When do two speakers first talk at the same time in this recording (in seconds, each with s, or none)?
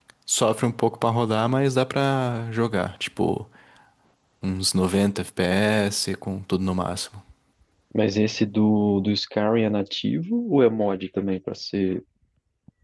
none